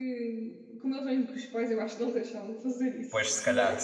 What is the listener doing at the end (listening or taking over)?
taking over